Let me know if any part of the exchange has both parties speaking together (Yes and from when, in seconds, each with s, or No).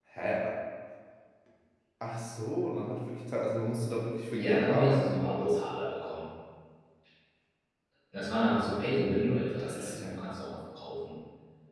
Yes, from 4.3 s